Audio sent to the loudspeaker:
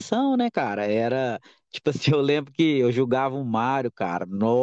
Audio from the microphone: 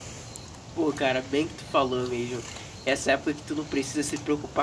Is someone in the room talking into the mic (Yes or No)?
Yes